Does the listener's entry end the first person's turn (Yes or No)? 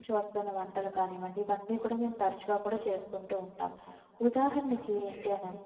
No